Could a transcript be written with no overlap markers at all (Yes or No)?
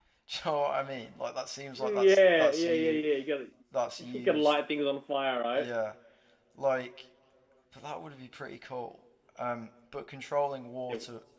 No